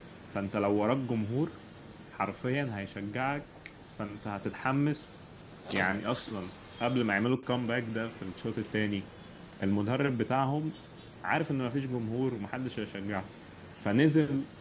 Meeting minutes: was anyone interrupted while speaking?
No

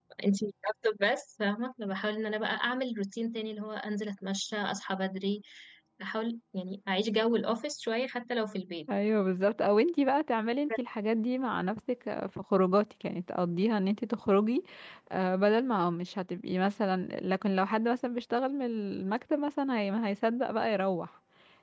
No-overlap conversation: Yes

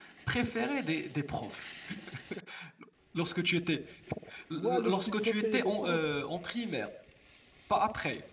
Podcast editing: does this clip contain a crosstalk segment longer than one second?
Yes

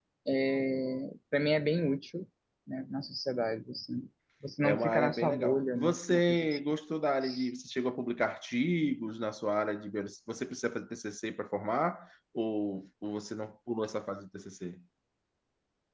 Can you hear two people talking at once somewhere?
Yes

